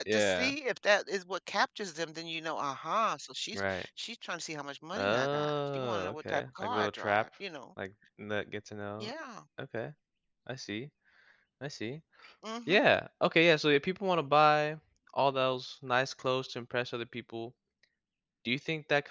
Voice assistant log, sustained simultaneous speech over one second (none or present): present